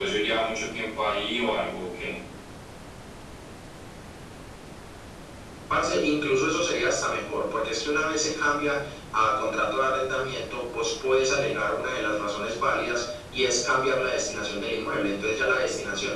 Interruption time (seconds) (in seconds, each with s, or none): none